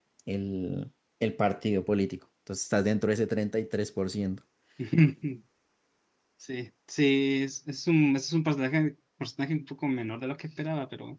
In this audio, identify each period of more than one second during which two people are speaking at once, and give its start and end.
none

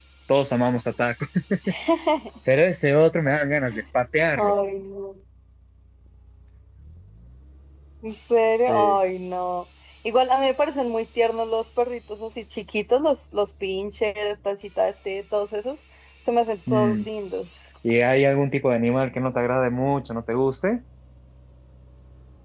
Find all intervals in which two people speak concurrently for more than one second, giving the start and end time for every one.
none

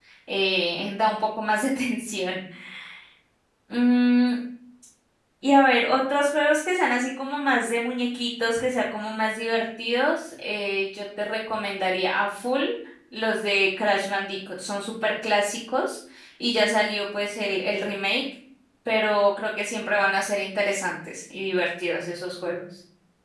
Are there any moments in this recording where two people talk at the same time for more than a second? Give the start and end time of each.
none

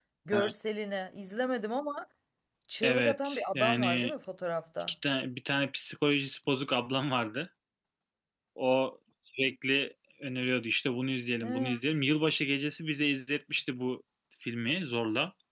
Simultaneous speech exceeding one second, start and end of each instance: 2.8-4.1

